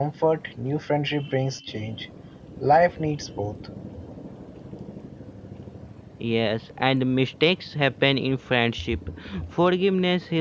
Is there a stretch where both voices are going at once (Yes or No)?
No